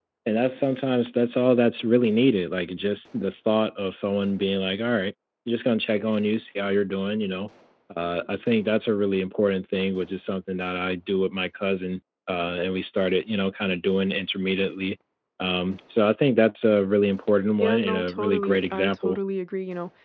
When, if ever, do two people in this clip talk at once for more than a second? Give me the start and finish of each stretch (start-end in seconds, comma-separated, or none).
17.6-19.2